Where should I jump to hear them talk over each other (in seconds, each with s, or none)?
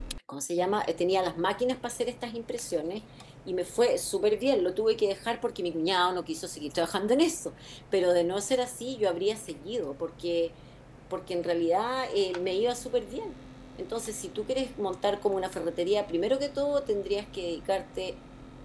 none